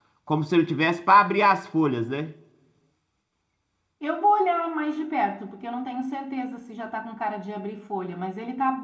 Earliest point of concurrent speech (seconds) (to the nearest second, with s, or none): none